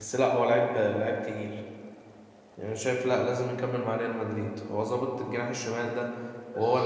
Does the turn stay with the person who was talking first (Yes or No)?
No